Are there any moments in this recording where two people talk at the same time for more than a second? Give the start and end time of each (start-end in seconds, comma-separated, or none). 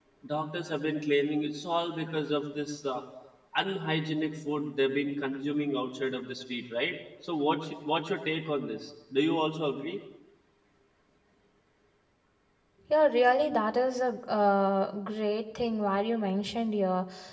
none